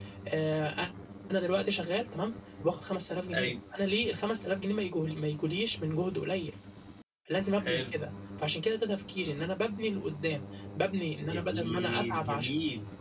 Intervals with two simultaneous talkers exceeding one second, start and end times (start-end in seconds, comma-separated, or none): 11.2-12.5